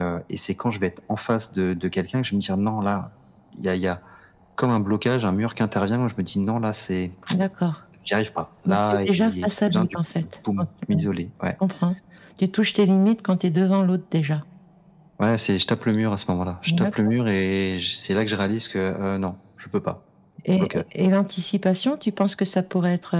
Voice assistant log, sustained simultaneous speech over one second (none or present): present